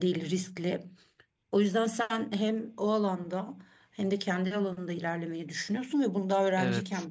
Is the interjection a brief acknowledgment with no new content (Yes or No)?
Yes